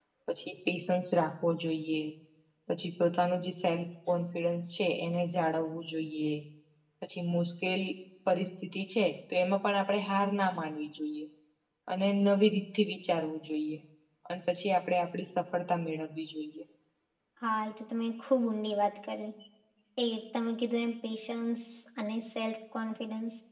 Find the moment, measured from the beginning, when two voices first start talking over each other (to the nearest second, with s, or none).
none